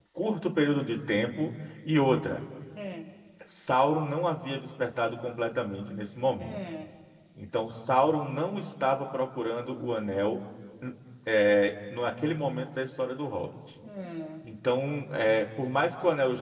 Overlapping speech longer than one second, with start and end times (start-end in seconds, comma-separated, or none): none